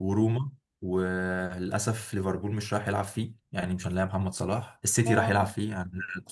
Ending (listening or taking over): listening